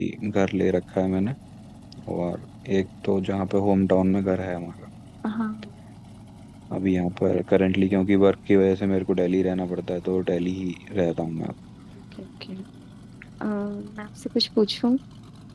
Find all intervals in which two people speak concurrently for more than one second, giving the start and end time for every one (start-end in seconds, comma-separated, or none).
none